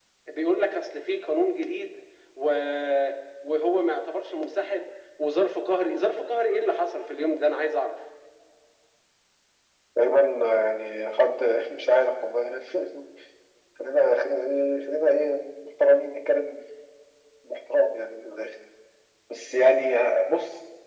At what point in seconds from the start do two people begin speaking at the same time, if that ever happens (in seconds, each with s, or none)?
none